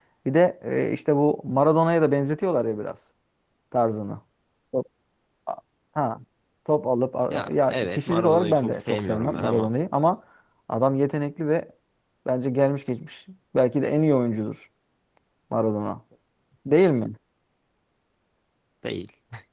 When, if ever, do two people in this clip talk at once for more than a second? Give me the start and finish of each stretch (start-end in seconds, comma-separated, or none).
7.5-9.7